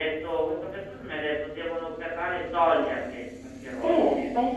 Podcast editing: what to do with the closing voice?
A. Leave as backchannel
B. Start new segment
B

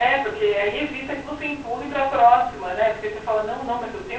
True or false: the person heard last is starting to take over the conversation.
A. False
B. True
A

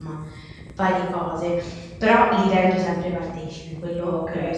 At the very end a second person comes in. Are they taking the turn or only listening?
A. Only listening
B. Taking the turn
B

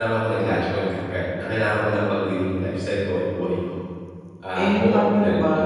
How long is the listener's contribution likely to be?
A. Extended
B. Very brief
A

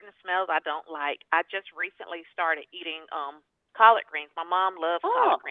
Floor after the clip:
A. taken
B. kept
B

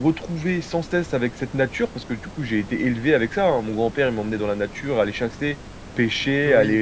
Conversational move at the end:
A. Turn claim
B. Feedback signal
B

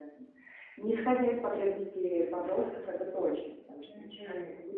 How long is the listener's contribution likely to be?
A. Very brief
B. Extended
B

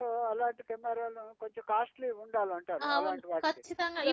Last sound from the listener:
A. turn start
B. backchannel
A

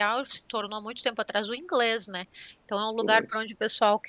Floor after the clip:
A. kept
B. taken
A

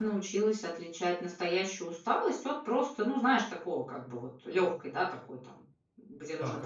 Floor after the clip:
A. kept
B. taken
B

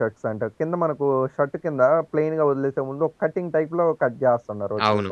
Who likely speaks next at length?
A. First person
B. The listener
B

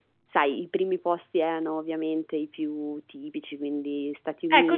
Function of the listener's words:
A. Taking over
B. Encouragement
A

